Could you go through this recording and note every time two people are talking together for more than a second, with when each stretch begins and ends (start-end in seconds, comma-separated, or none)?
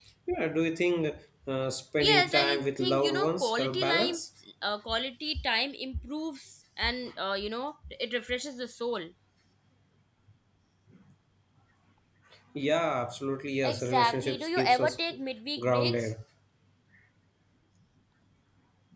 2.0-4.2, 13.6-15.0